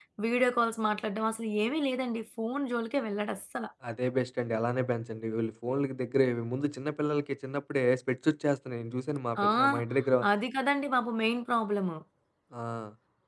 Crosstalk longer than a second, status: none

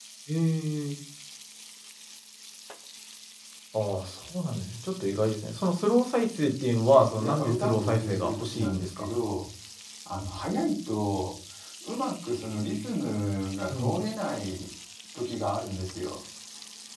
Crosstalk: present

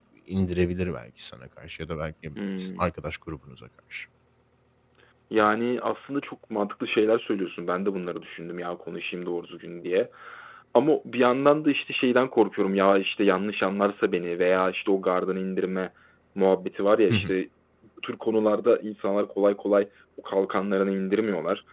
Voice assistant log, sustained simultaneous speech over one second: none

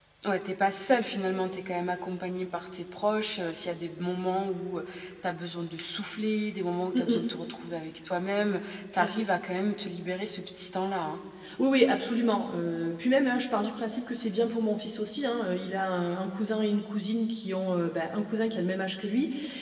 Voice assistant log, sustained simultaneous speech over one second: none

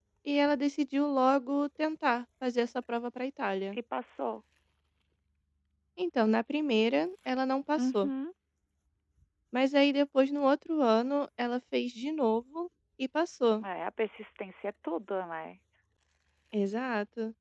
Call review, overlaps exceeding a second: none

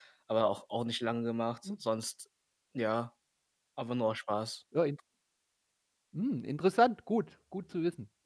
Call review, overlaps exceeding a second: none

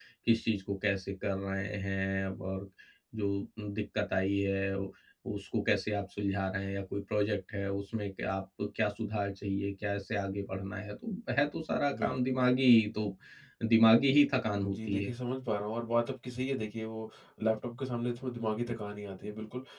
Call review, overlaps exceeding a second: none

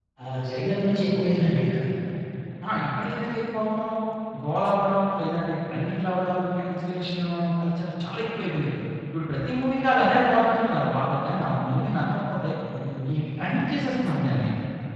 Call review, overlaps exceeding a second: none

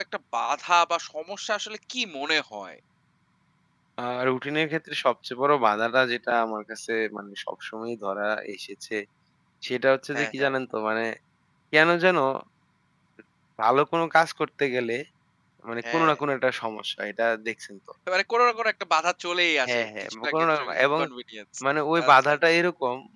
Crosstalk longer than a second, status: present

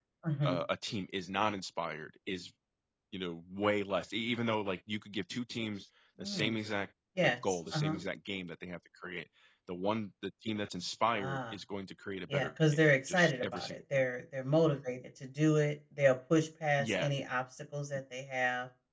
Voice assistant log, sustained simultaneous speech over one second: present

